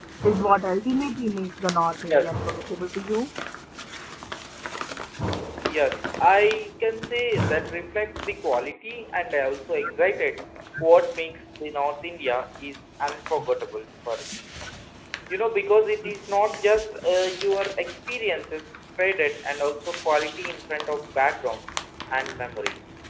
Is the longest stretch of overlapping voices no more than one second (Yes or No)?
Yes